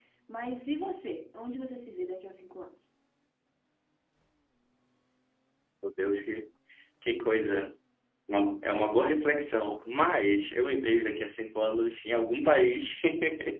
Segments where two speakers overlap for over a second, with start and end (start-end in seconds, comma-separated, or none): none